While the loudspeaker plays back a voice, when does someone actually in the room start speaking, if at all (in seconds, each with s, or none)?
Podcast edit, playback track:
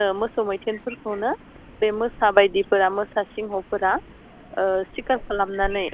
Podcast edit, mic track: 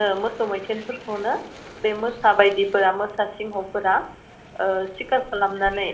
none